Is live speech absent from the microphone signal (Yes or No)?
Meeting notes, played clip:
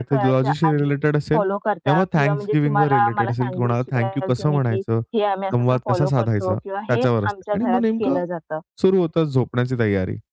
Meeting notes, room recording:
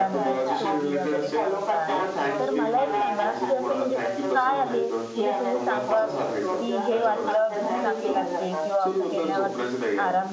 No